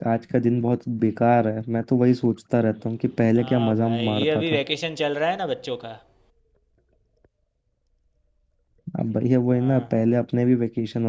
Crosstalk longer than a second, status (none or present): present